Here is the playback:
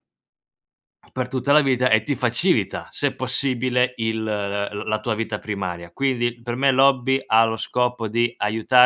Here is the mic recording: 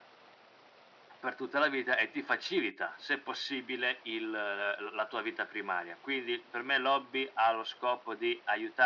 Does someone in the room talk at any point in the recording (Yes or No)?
No